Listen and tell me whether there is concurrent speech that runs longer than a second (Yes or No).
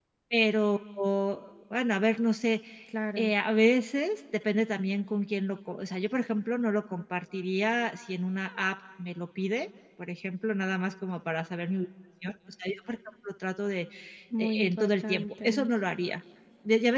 Yes